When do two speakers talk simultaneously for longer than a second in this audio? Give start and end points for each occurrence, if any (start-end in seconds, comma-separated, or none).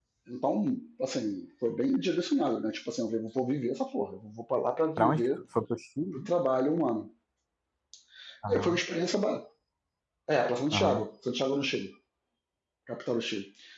none